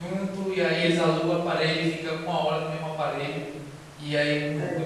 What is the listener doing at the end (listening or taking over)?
listening